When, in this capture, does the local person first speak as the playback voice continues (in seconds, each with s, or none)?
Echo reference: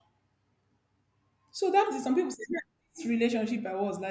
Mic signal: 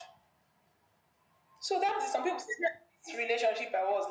none